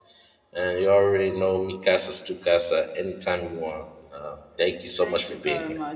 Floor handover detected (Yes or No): Yes